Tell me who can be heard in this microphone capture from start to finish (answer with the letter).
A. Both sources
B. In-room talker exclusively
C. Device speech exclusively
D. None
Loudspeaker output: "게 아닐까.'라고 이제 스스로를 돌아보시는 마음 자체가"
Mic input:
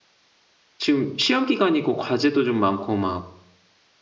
B